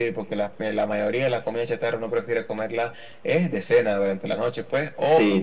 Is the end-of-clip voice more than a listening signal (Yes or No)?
No